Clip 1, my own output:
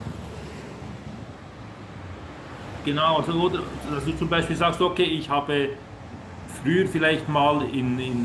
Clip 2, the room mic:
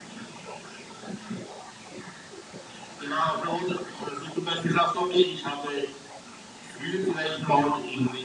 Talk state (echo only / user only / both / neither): echo only